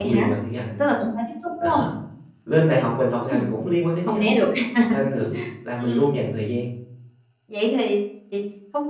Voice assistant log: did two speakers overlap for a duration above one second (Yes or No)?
No